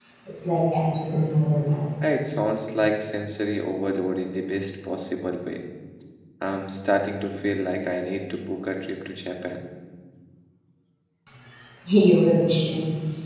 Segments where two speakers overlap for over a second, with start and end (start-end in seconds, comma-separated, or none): none